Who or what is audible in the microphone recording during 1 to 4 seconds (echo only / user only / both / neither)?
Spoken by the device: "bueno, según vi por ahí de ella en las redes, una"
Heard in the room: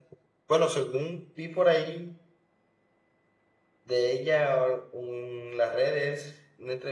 echo only